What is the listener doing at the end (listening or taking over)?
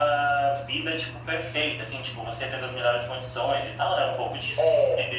listening